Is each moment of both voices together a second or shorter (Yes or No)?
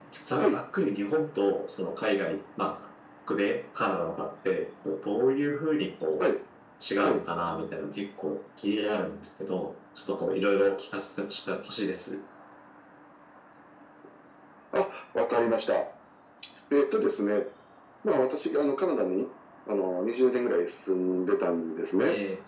Yes